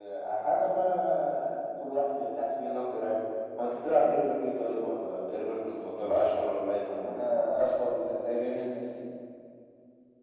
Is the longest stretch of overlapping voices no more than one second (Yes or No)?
Yes